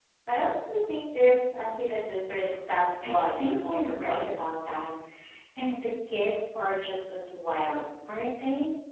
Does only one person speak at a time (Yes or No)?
No